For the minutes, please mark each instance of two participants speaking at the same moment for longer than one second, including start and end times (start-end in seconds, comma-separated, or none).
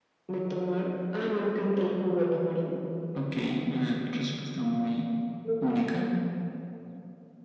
none